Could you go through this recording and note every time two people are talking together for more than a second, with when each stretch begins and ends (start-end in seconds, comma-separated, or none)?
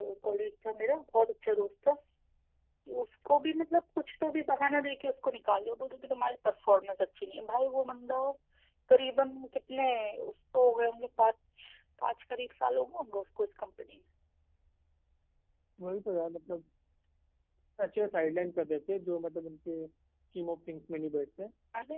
none